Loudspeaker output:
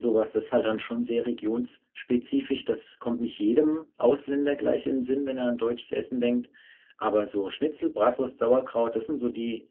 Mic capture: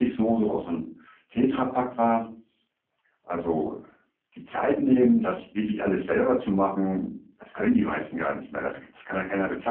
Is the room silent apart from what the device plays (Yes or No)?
No